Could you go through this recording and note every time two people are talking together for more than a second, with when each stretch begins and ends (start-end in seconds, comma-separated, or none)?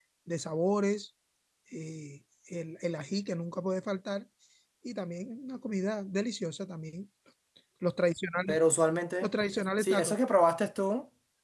none